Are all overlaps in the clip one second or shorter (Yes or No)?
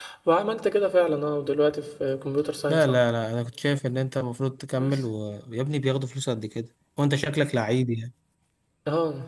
Yes